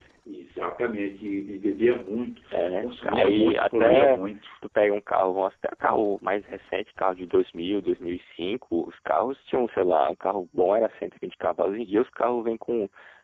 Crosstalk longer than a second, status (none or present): present